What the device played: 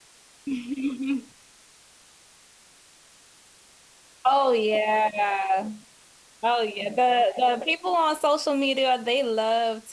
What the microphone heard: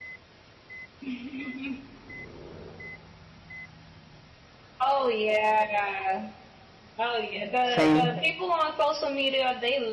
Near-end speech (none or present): present